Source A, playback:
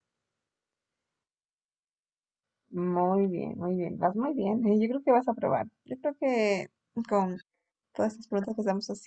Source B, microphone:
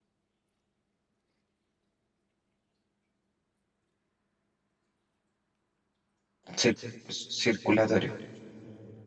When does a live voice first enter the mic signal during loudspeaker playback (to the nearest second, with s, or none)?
7 s